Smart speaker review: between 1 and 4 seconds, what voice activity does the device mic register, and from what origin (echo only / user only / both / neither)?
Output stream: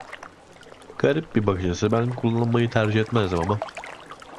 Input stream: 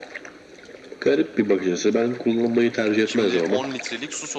both